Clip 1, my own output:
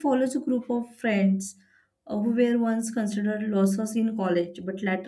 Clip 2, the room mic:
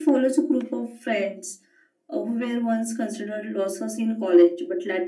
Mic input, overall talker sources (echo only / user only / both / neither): echo only